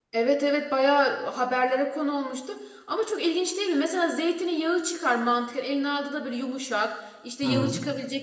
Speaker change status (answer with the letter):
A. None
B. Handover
A